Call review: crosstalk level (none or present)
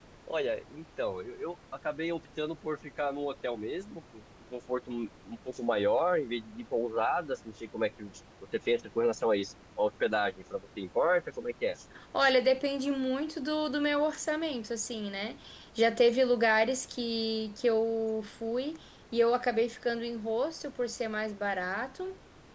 none